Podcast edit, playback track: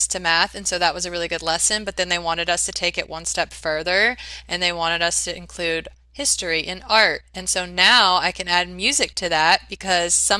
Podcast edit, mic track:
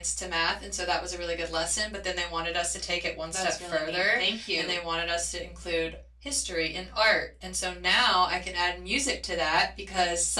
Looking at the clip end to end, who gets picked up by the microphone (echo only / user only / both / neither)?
both